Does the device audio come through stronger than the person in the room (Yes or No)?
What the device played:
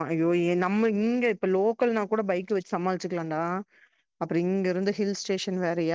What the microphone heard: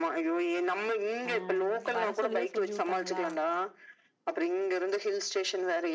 Yes